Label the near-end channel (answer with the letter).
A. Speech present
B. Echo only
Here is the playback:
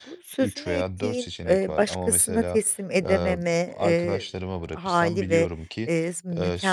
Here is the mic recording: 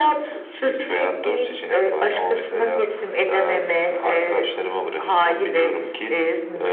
B